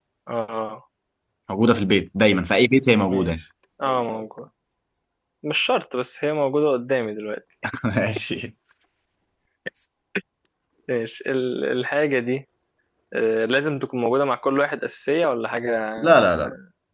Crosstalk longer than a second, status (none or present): none